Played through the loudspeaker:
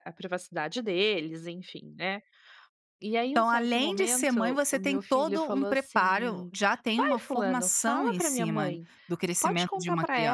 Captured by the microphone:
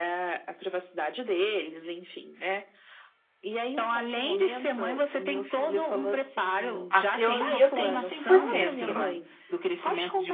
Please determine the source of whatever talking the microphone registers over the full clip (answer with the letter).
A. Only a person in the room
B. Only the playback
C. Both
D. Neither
C